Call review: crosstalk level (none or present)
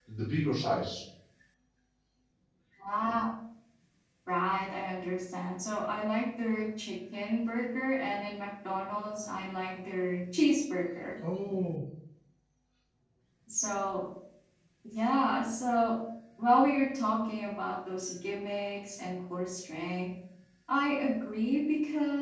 none